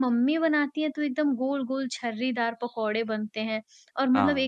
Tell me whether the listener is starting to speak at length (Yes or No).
No